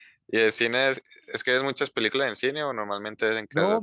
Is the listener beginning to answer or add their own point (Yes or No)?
Yes